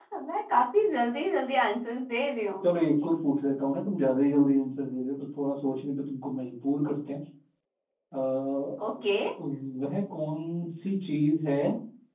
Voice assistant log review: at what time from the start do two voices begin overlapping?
none

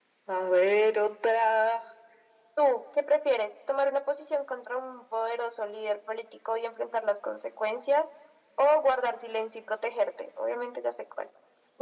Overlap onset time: none

